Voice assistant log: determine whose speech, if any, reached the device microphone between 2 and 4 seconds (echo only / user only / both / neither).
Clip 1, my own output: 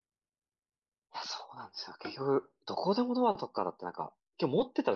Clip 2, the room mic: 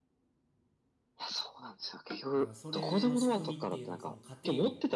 both